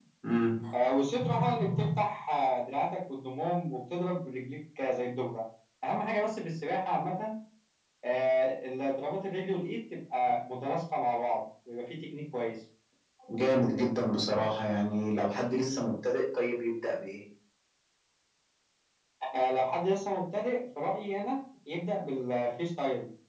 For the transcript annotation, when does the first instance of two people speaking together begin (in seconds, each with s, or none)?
none